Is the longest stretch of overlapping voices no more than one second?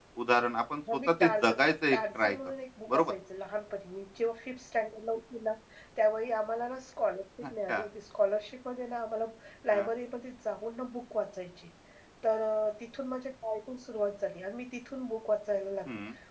No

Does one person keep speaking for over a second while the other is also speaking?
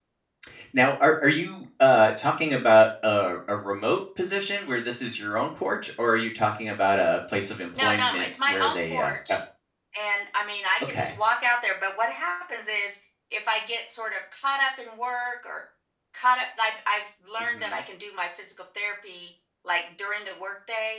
Yes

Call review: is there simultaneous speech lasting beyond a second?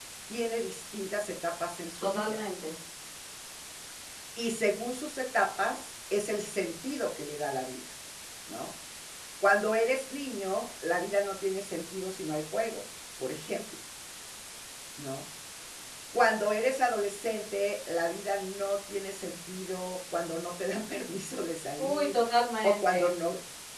No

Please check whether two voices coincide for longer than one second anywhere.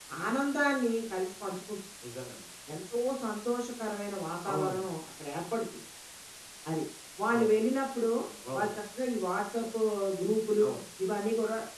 No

